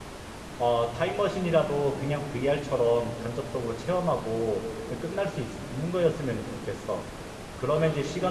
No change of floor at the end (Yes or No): Yes